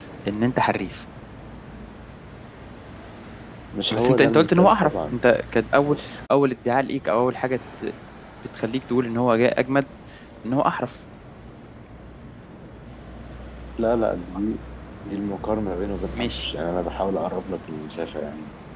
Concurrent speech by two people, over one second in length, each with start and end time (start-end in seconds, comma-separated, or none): 3.9-5.2